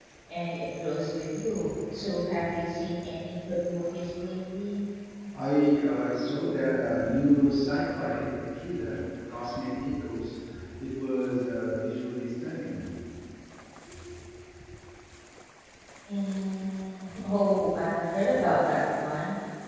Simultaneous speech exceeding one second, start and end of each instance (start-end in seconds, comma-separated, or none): none